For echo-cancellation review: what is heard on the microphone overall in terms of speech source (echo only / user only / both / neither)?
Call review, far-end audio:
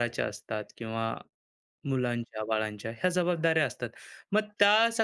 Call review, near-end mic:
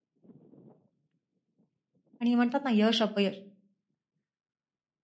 user only